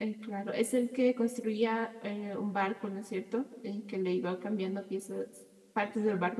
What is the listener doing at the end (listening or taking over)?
taking over